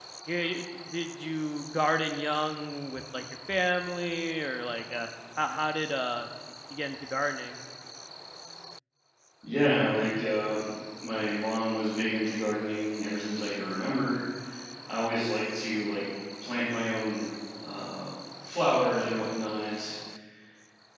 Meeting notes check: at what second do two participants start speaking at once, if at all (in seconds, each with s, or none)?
none